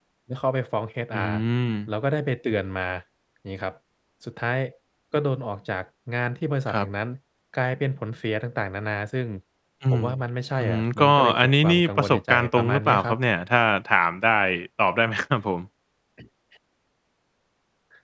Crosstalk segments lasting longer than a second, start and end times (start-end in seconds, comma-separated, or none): 10.6-13.2